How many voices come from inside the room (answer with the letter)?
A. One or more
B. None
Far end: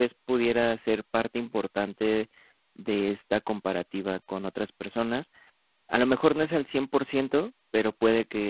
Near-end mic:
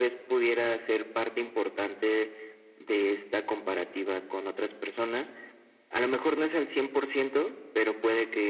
B